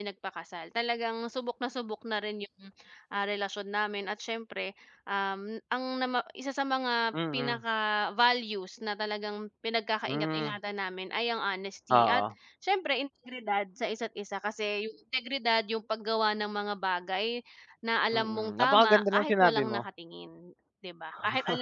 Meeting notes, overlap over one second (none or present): present